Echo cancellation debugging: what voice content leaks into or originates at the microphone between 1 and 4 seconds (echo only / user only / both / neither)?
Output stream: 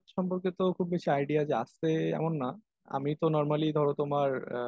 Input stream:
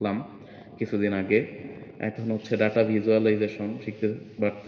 user only